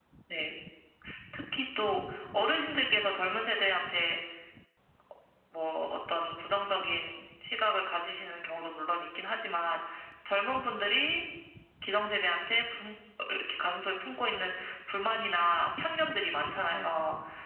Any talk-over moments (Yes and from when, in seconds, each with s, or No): No